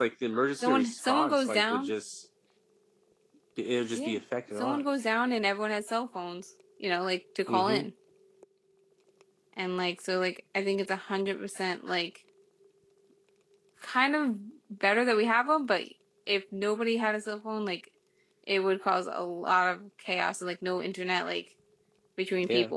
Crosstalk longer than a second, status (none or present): present